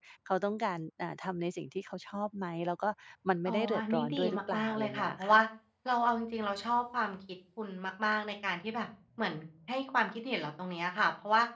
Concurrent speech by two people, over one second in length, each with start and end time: 3.5-5.4

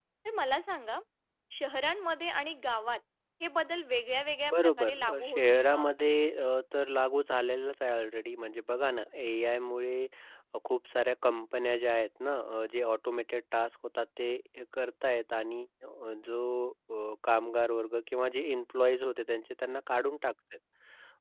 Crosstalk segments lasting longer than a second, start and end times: 4.5-5.9

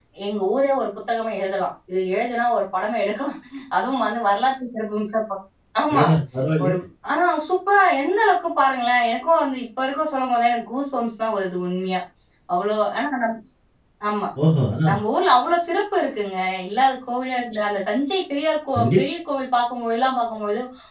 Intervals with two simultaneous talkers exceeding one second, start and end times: none

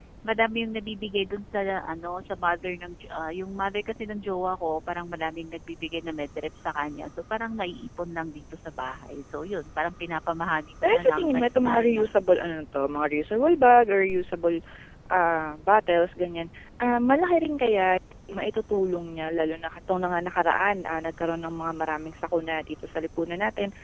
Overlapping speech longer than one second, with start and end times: 10.8-12.2

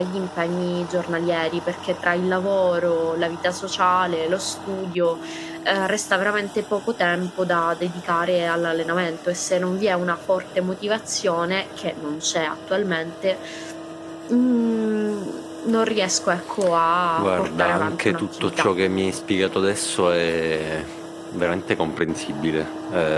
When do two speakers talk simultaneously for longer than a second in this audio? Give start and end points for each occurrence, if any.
17.2-18.7

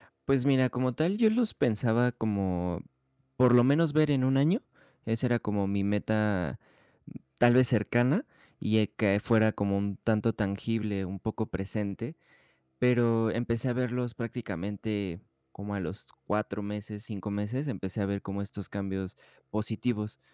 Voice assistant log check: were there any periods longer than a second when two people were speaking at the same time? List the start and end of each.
none

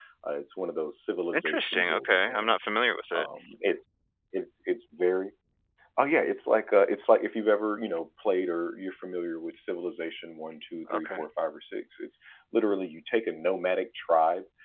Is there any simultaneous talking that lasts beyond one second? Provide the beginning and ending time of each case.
1.3-2.5

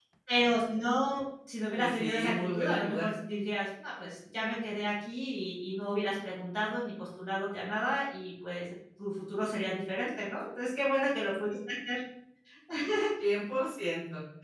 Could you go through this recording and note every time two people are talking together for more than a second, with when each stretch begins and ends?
1.7-3.1

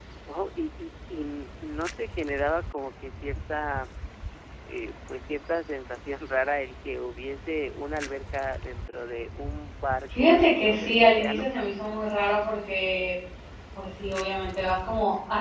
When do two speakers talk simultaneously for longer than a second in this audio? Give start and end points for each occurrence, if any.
10.2-11.4

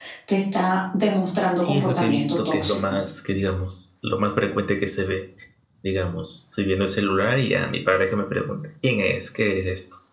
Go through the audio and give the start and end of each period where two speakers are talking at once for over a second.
1.5-3.0

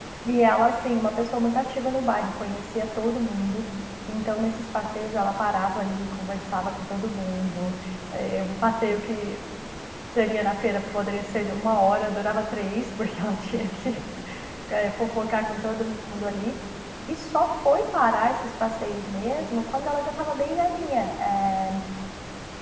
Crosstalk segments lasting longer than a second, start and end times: none

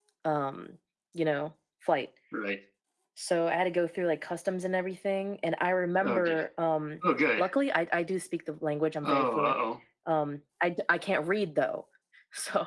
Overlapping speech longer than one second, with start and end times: none

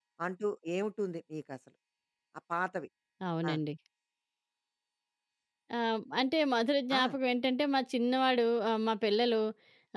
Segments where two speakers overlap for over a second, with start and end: none

